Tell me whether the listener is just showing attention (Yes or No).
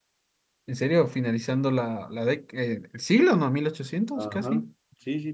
No